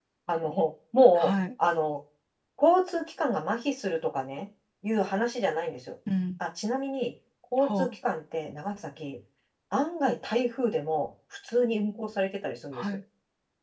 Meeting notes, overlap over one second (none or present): none